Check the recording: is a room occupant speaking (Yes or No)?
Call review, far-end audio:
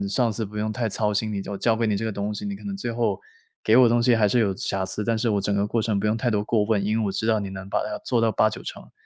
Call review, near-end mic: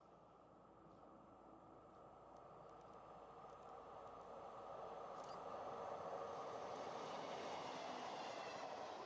No